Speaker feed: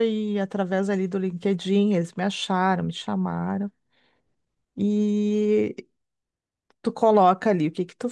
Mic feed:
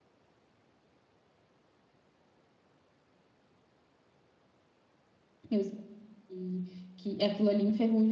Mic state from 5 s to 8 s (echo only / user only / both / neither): user only